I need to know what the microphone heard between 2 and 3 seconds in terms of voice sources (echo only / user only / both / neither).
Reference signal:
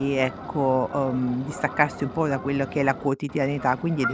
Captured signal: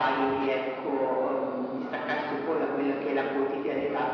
echo only